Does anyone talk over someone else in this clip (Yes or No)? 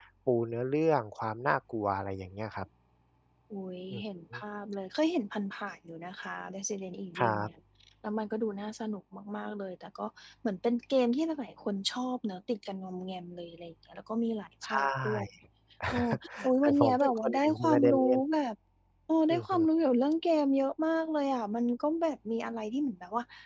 Yes